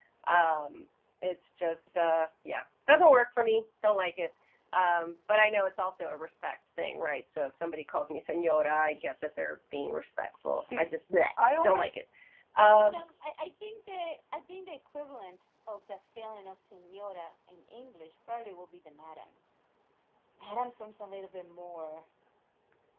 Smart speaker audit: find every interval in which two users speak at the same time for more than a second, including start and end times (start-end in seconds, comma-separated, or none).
none